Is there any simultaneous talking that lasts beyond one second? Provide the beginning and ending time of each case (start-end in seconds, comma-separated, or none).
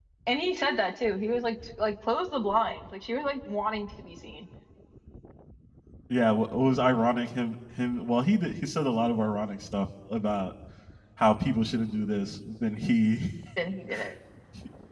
none